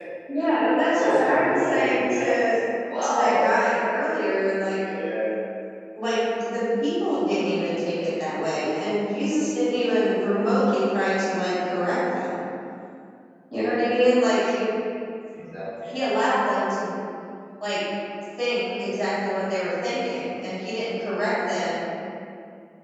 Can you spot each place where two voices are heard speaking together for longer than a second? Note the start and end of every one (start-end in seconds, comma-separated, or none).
1.0-2.3